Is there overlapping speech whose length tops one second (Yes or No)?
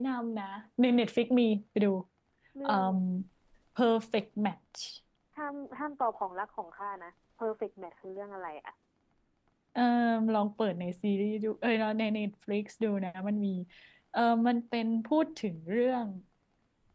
No